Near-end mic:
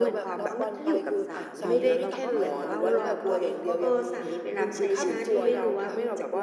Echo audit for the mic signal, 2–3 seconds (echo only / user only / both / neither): both